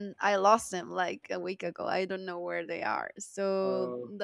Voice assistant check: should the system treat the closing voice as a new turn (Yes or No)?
No